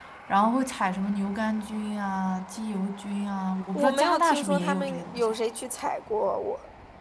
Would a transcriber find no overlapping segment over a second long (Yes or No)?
No